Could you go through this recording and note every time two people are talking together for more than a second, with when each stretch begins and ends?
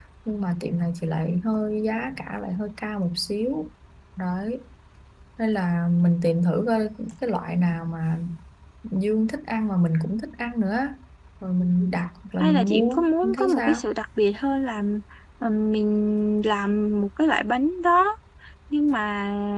12.4-13.8

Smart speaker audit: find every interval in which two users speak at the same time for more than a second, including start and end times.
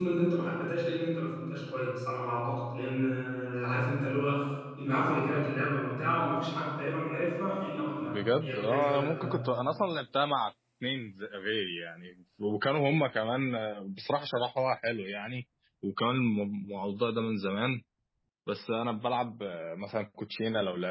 8.0-9.4

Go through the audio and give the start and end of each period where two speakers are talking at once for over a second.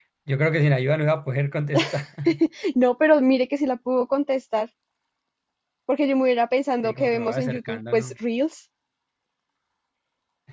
6.8-8.1

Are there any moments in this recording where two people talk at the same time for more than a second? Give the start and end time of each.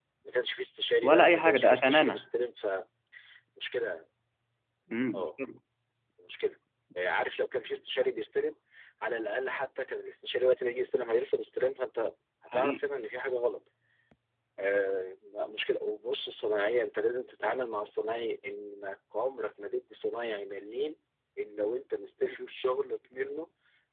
1.0-2.2

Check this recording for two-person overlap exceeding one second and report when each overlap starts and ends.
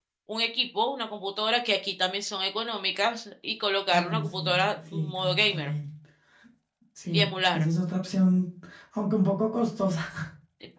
3.9-5.7

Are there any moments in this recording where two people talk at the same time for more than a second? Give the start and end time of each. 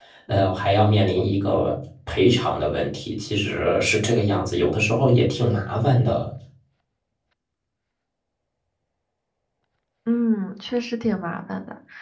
none

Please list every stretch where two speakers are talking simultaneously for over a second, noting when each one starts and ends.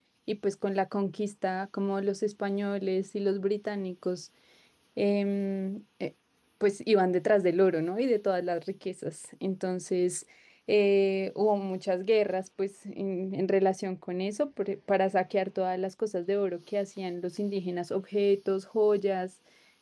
none

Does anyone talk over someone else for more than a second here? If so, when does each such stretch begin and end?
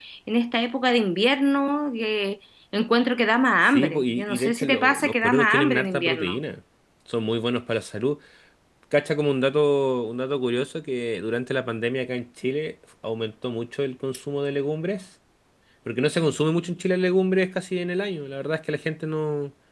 3.7-6.4

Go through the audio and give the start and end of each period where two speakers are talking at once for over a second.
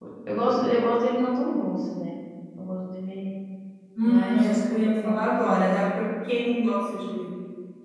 4.0-5.7

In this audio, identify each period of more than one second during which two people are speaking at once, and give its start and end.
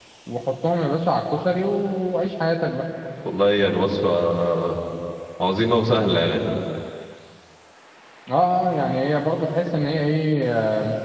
none

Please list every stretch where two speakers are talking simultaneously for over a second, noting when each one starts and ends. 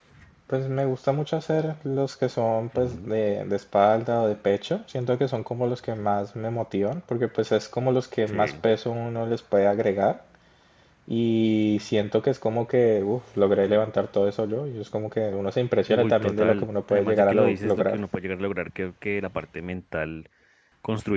15.9-18.0

